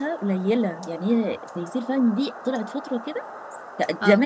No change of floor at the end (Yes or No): Yes